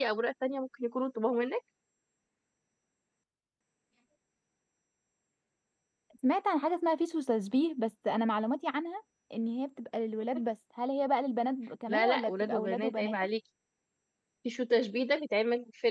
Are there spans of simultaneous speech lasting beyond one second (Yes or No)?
Yes